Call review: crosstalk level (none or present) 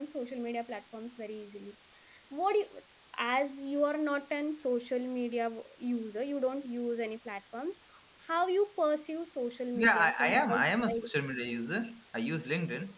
present